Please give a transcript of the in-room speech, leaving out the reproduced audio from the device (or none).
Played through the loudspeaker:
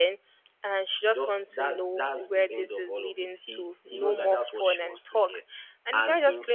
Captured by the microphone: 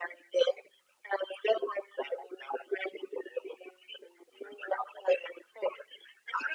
none